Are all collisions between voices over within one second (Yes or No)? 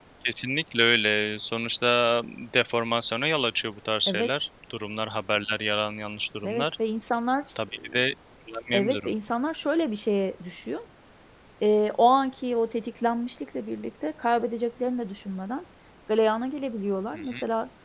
Yes